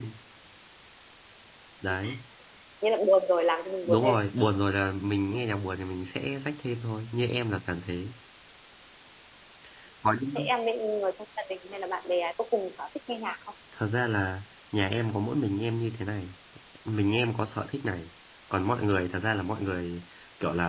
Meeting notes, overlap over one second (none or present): none